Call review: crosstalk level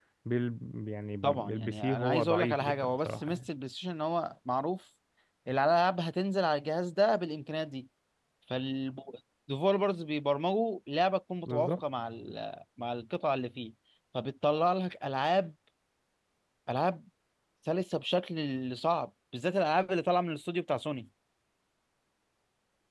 present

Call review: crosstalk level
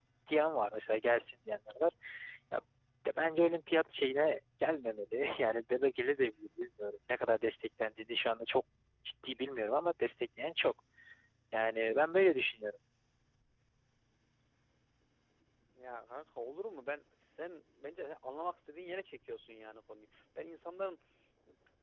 none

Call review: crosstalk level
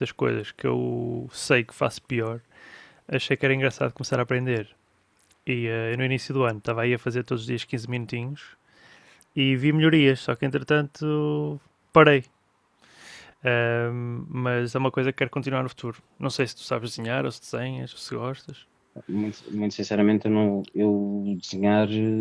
none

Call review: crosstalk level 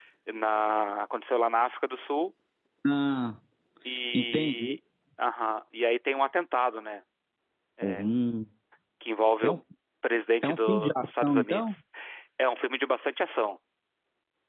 present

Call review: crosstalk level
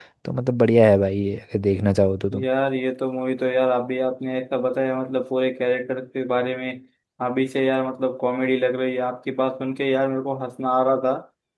none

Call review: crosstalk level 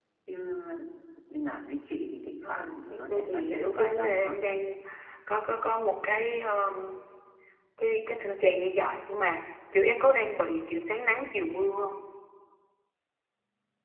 present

